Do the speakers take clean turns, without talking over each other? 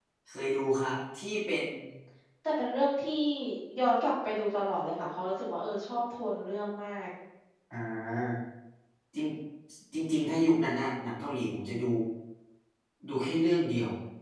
Yes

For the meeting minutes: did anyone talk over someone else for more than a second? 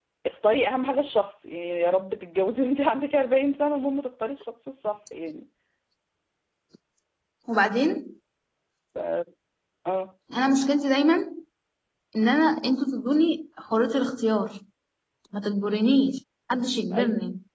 No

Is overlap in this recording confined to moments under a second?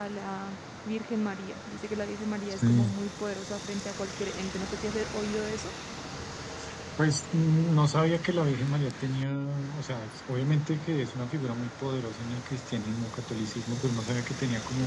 Yes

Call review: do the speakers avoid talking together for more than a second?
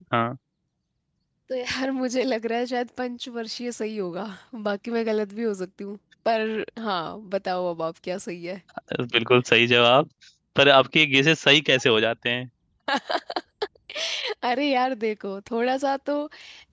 Yes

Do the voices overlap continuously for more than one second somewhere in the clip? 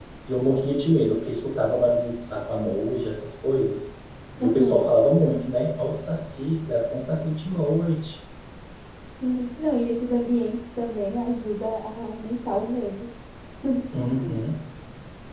No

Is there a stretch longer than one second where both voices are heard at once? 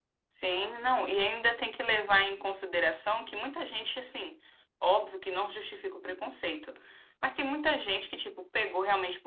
No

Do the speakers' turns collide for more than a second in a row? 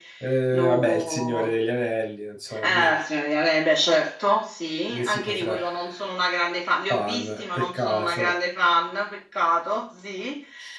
Yes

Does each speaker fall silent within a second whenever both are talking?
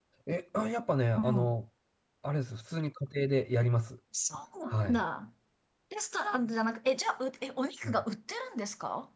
Yes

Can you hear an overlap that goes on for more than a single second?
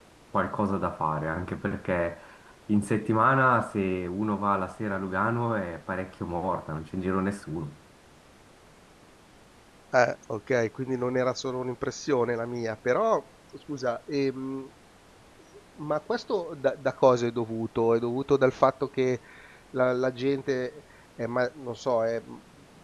No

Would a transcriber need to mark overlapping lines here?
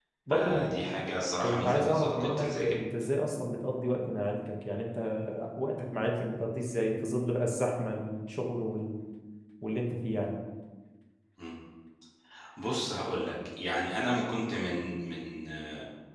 Yes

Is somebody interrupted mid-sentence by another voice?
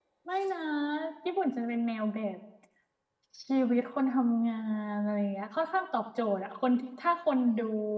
No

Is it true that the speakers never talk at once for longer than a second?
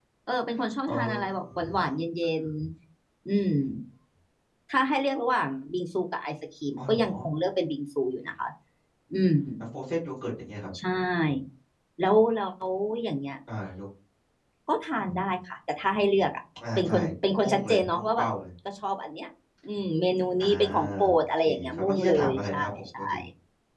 No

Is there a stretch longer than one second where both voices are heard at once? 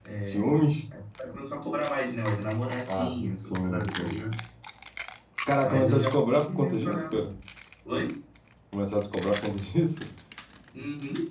Yes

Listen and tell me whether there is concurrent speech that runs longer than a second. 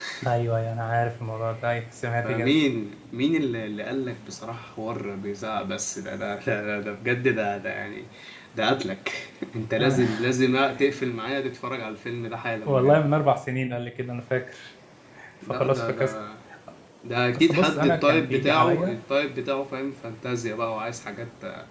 Yes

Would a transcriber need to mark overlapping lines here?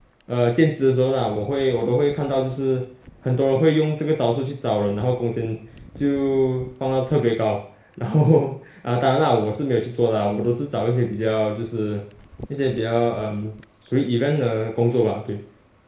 No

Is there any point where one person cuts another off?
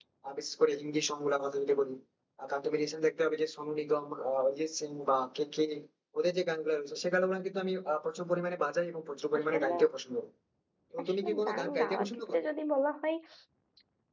Yes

